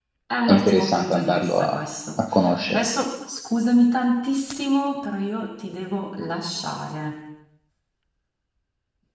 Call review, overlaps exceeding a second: present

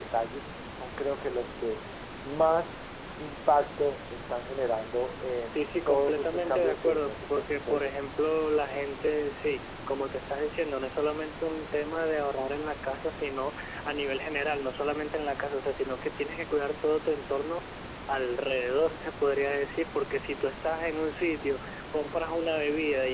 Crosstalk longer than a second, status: present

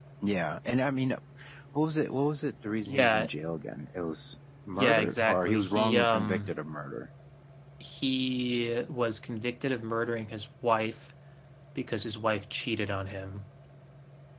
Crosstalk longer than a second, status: present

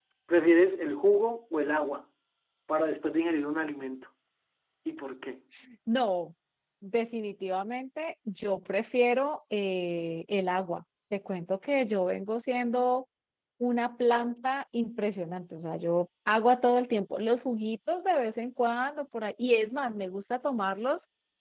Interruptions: none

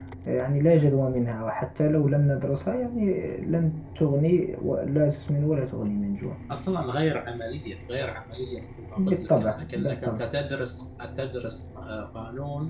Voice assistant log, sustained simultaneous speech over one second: present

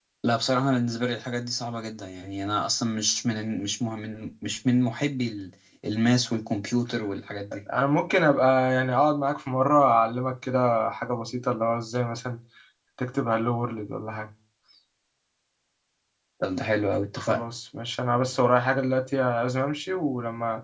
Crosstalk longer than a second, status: none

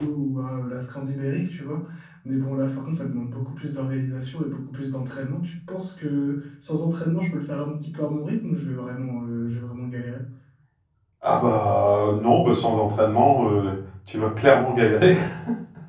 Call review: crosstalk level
none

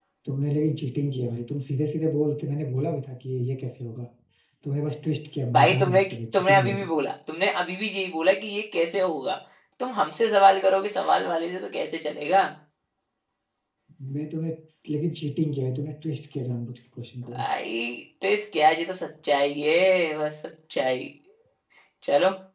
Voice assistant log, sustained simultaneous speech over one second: present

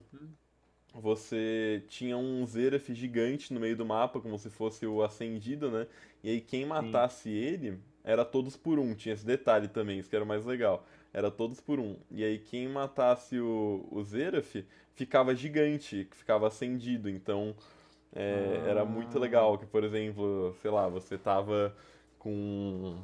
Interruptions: present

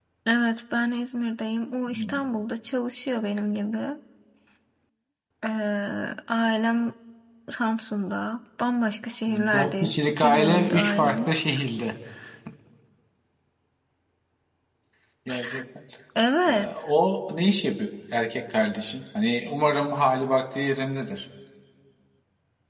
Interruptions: present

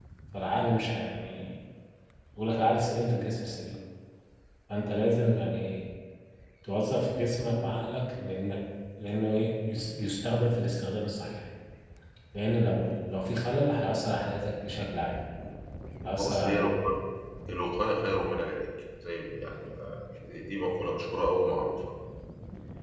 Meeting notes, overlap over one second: none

